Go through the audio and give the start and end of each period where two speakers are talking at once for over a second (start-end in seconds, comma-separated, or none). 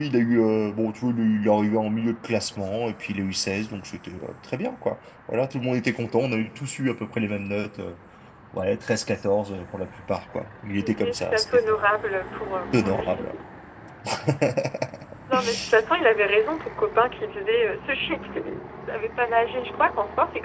10.8-12.0